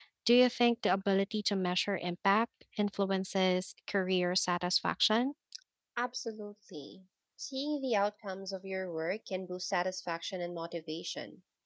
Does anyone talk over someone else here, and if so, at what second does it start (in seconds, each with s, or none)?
none